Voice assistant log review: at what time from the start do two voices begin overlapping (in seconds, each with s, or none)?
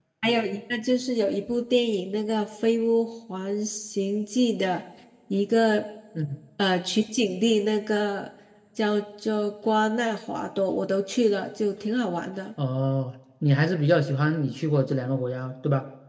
none